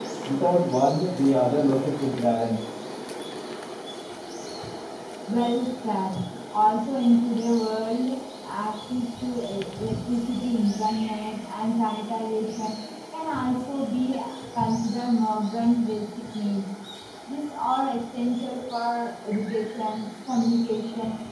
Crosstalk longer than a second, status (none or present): none